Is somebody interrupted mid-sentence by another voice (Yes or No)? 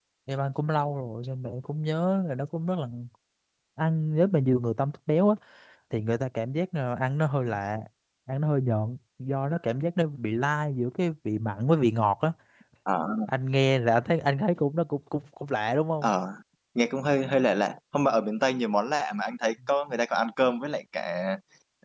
No